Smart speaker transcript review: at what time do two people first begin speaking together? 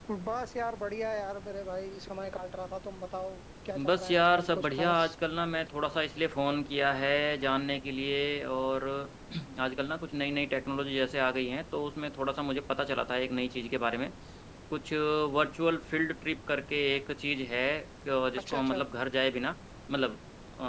3.9 s

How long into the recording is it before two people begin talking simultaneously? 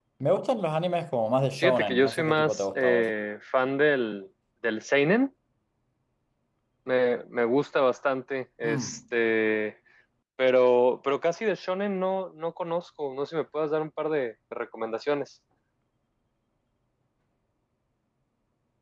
1.6 s

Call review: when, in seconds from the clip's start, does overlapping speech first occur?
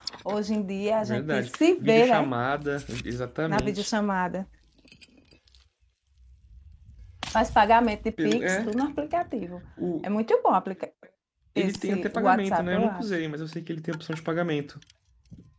1.0 s

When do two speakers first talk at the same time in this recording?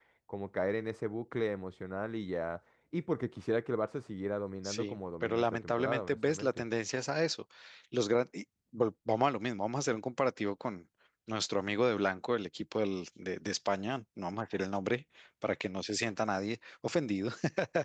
4.6 s

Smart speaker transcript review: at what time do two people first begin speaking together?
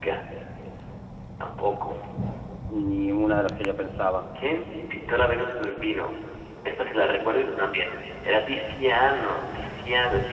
none

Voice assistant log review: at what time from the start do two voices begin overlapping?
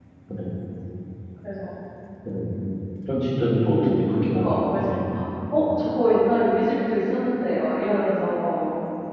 3.7 s

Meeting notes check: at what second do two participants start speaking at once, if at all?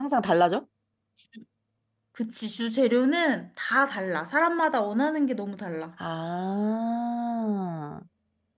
none

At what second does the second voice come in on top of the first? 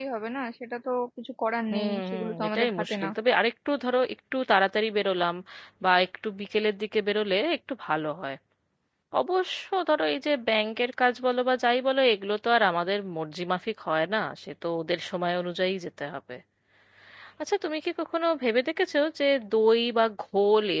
1.7 s

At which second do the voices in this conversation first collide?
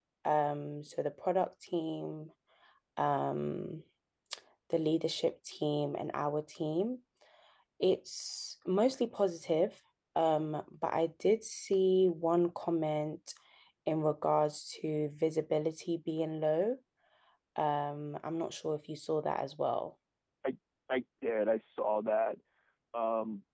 none

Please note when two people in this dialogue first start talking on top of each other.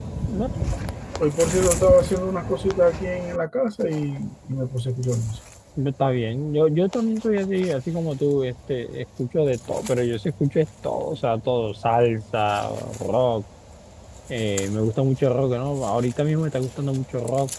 none

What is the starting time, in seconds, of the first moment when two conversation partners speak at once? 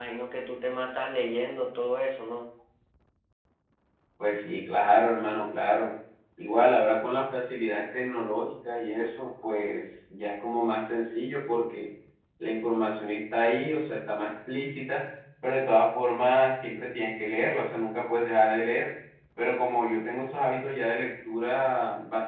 none

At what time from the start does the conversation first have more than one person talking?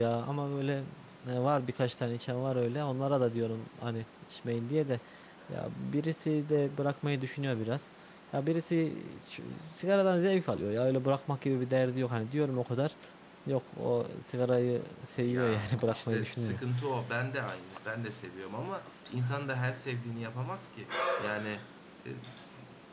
15.2 s

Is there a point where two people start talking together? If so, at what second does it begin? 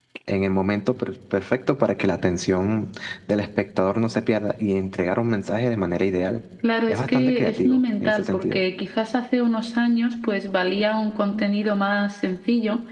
6.9 s

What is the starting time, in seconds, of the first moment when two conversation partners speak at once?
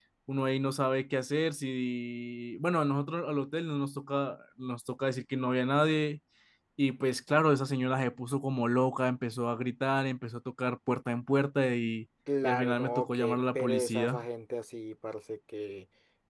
12.3 s

